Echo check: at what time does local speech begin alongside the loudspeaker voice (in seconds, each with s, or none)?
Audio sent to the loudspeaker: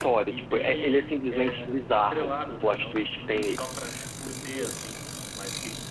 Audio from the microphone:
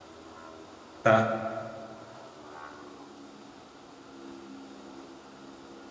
1.0 s